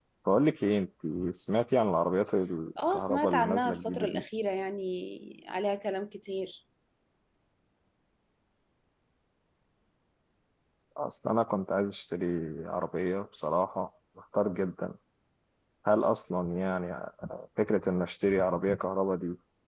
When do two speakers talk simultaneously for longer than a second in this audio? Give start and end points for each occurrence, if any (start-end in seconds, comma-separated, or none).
2.9-4.2